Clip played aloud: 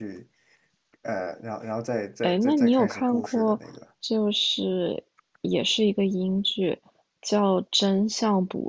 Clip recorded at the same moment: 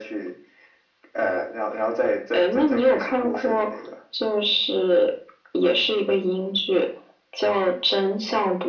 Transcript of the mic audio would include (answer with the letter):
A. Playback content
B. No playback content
A